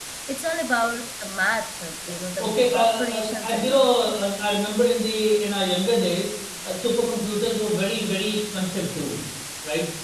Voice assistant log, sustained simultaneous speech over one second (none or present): present